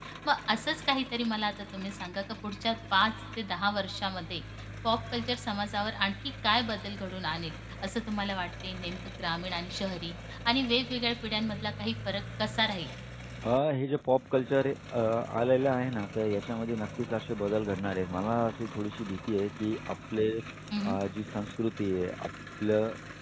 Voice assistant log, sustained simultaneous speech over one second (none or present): none